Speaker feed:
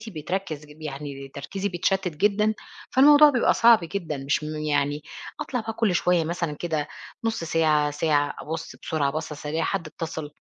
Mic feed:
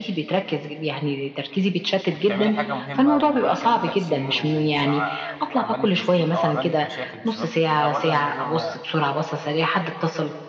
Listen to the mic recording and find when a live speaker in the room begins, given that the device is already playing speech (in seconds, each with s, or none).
2.1 s